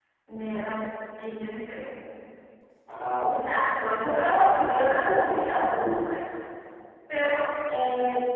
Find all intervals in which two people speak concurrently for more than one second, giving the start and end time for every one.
4.0-6.0

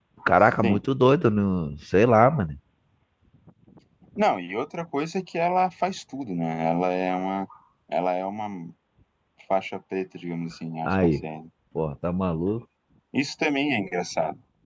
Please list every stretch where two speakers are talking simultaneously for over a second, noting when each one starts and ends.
none

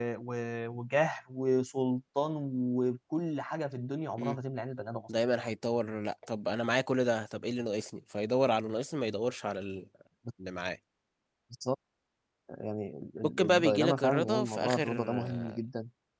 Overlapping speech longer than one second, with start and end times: 13.2-15.6

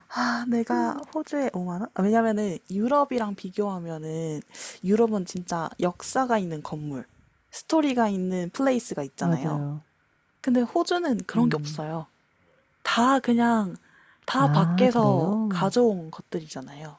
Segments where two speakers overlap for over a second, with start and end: 14.4-15.7

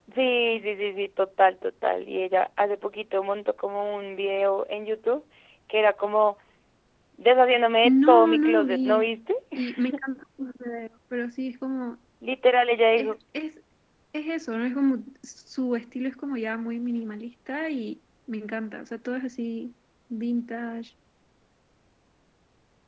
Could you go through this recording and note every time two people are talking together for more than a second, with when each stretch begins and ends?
7.8-9.0

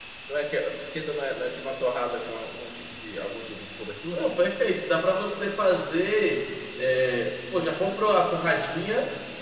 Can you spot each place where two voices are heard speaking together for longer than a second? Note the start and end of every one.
none

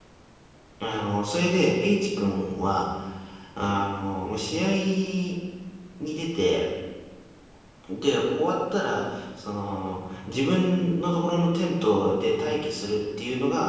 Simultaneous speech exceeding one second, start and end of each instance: none

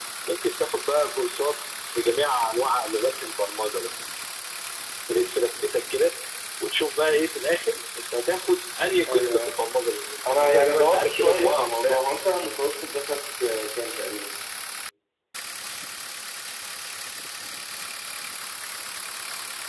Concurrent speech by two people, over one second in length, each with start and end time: 10.2-12.0

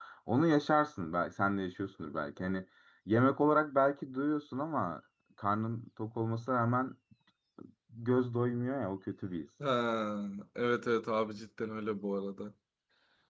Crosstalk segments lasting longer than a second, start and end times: none

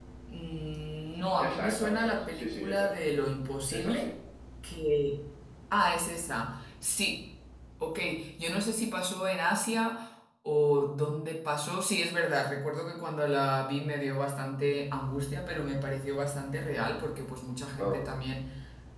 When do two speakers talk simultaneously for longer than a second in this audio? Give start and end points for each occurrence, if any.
1.4-2.9

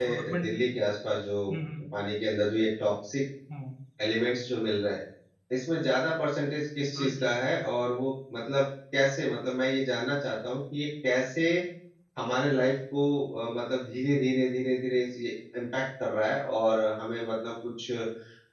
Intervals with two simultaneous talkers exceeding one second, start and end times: none

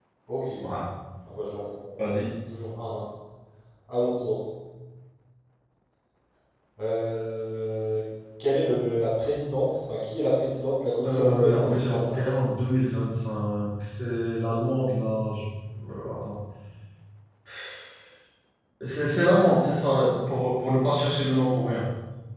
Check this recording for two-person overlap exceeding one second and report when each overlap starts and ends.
11.1-12.3

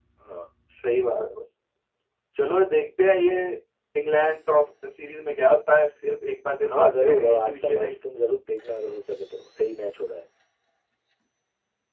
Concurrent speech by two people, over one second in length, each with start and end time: 6.7-8.0

